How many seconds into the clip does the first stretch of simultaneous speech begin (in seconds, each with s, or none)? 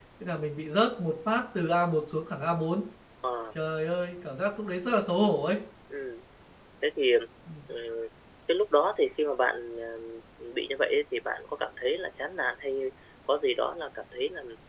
none